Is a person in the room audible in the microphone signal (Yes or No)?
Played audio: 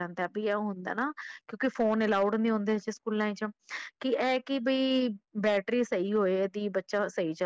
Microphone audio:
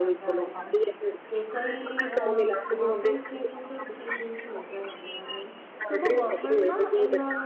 Yes